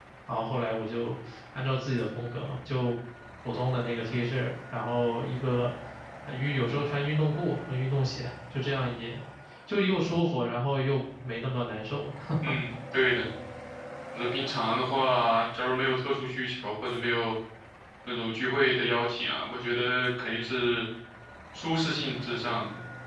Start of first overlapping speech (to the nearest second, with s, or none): none